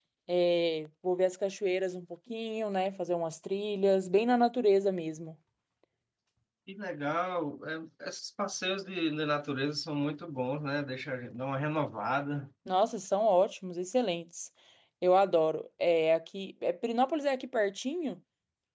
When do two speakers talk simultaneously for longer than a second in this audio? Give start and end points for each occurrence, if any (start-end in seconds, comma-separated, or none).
none